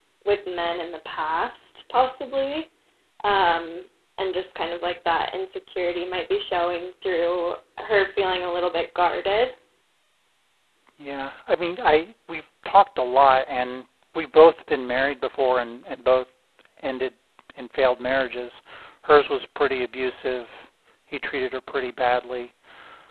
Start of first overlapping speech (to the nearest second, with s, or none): none